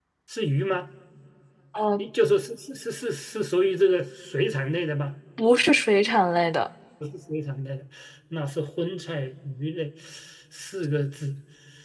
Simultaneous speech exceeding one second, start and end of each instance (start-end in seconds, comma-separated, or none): none